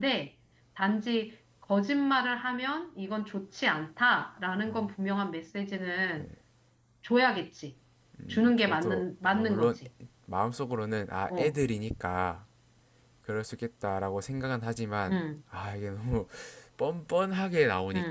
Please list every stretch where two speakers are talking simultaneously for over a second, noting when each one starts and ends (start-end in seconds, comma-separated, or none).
8.3-9.7